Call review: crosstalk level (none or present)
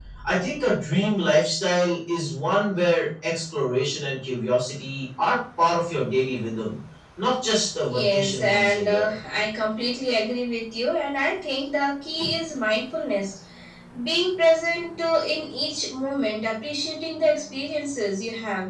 present